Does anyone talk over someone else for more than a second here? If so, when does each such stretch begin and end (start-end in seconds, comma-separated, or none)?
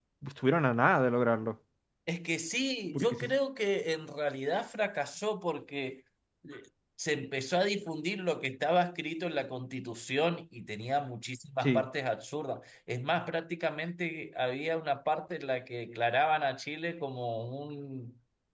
none